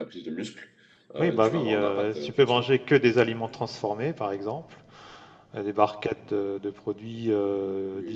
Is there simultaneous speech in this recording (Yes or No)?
Yes